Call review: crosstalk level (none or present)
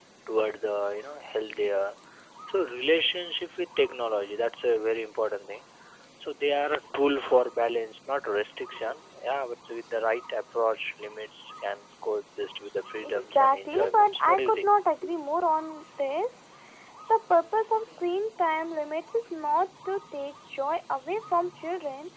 present